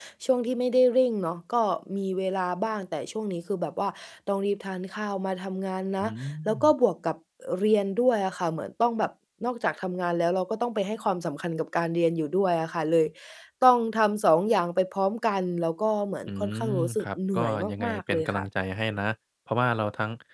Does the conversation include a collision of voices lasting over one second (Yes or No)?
Yes